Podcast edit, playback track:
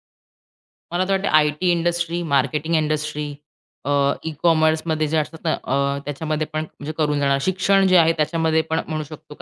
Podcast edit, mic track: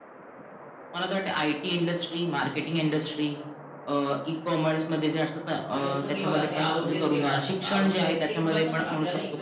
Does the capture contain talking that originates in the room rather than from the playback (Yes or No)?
Yes